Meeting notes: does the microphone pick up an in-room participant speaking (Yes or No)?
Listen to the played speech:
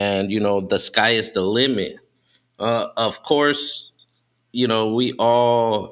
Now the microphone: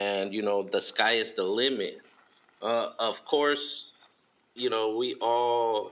No